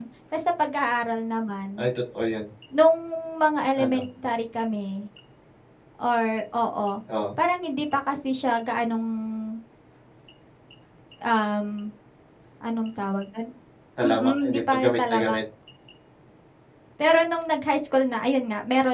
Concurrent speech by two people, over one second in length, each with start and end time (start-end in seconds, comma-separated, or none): 14.0-15.4